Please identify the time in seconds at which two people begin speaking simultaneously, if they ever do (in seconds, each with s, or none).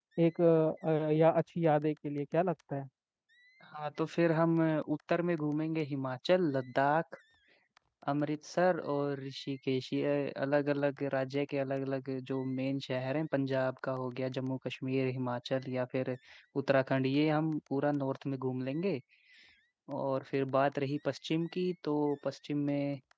none